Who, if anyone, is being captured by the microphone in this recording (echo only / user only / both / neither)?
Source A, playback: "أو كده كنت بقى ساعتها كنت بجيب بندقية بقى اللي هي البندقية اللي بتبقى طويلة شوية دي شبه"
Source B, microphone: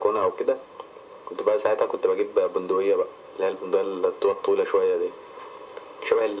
echo only